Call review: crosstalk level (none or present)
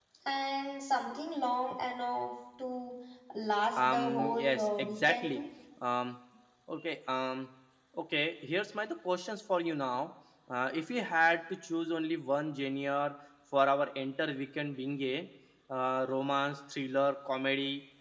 present